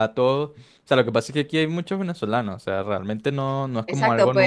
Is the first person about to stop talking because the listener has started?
Yes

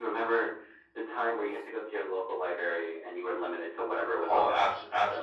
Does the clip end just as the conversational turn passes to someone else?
Yes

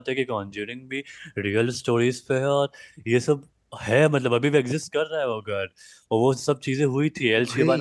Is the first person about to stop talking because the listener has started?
No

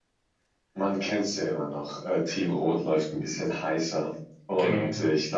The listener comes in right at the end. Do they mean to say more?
No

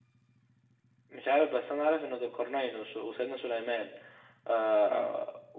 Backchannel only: Yes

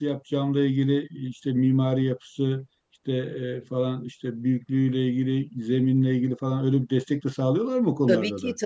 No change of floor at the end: No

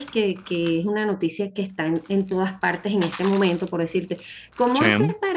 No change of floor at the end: Yes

